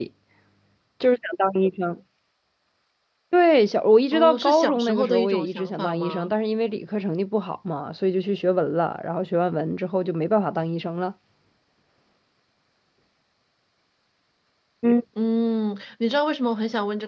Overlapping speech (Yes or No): Yes